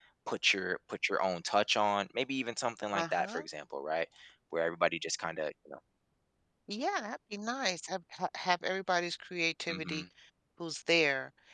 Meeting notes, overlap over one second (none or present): none